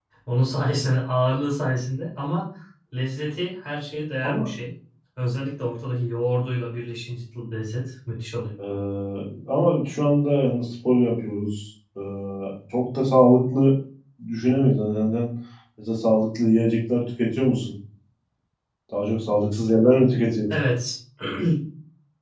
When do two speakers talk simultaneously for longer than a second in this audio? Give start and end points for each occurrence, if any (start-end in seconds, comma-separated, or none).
none